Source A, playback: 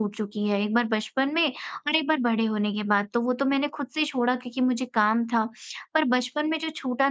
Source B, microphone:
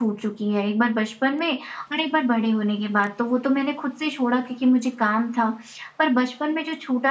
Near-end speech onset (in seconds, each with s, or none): none